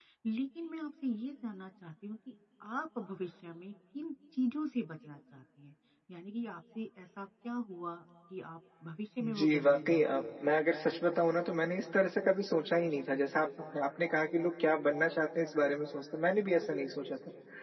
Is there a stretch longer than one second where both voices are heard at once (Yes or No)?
Yes